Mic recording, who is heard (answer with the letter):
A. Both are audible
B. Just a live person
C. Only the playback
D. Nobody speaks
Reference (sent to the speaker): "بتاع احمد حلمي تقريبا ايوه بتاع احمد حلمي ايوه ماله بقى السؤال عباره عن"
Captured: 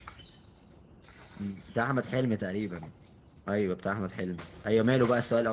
C